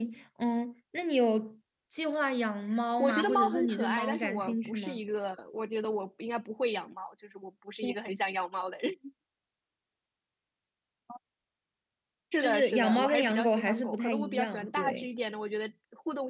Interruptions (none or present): present